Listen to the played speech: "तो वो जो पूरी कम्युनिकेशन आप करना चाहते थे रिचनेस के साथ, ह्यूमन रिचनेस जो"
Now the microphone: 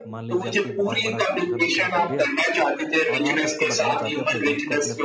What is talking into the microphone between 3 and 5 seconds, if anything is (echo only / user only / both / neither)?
both